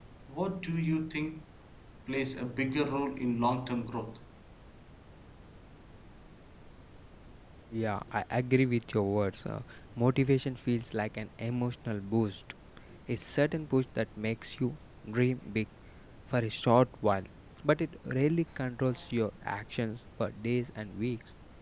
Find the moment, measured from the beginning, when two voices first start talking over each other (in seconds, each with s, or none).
none